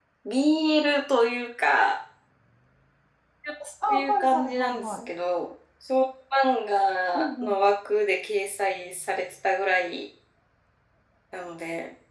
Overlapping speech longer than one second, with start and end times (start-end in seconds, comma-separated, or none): 3.9-5.1